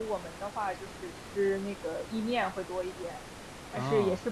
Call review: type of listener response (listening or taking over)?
listening